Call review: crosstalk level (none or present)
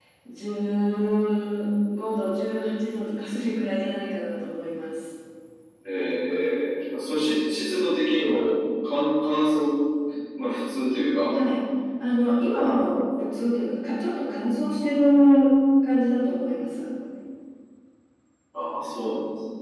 none